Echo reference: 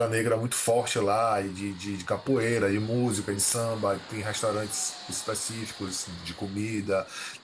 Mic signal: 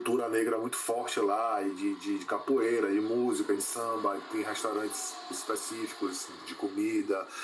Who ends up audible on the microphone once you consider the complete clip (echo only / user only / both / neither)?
echo only